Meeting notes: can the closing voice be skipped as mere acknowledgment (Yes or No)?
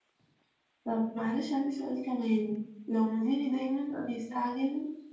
Yes